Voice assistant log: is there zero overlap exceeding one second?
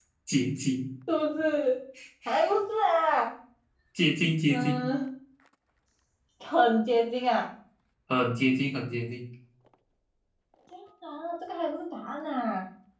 Yes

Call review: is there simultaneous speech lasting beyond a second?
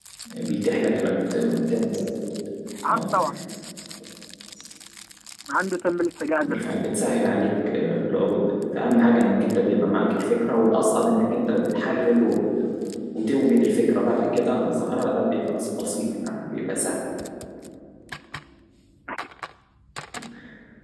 No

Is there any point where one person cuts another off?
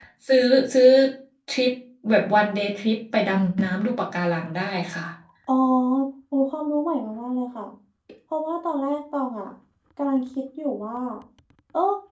No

